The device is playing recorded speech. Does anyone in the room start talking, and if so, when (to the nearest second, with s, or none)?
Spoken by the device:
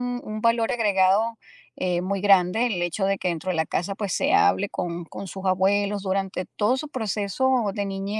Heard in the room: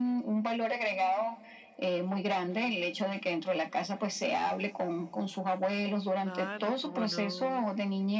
6 s